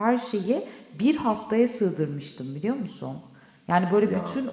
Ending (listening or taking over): listening